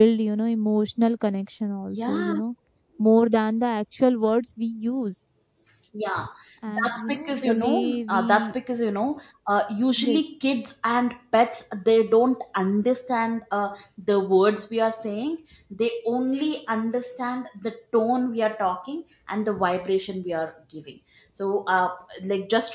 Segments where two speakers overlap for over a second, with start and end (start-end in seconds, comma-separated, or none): 6.7-8.5